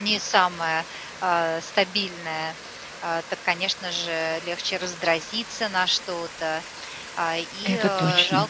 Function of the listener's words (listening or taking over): listening